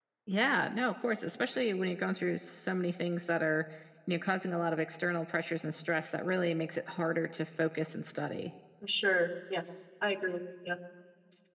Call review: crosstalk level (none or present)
none